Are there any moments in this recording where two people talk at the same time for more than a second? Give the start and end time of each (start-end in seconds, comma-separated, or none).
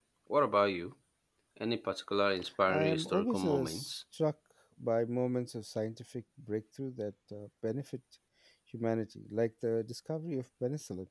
2.7-4.0